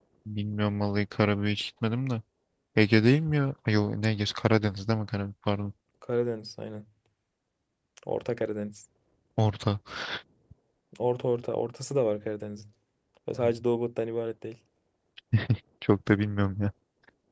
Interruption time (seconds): none

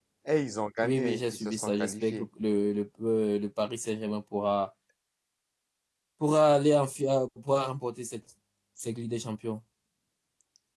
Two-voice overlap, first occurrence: 1 s

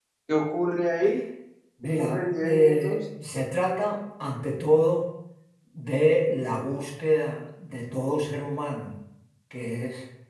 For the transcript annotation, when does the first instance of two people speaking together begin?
2 s

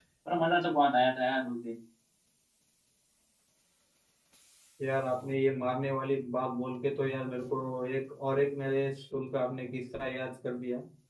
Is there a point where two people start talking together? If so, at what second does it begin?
none

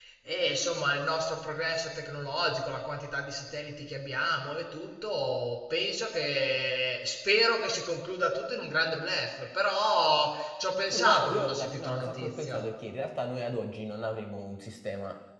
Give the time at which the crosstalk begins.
11 s

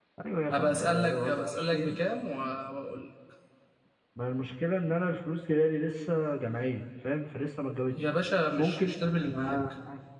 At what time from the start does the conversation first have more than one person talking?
1 s

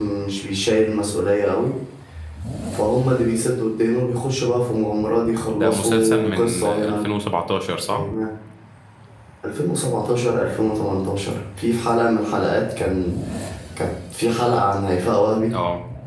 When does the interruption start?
6 s

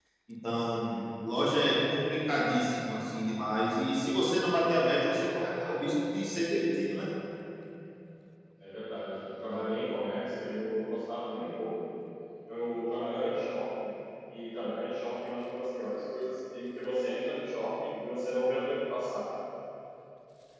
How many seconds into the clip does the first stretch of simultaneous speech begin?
none

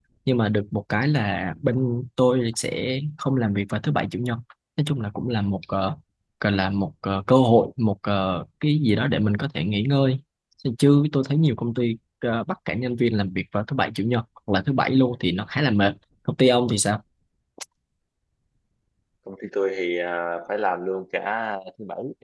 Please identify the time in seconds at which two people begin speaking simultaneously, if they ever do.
none

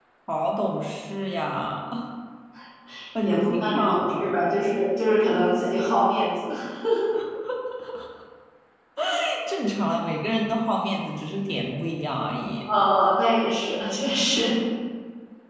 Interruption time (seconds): 3 s

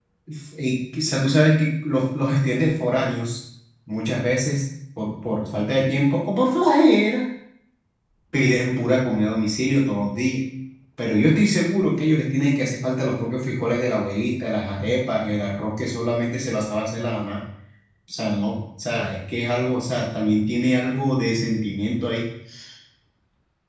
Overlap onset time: none

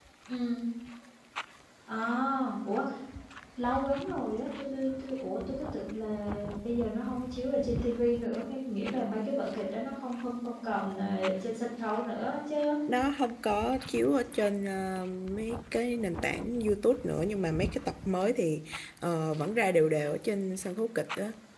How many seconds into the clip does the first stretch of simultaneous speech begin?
none

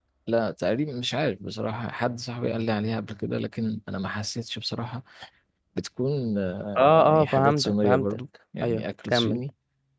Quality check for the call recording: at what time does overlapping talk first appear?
7 s

